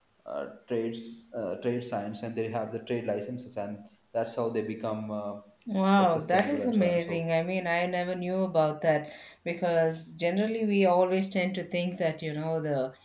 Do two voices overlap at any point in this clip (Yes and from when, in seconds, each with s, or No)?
Yes, from 6.0 s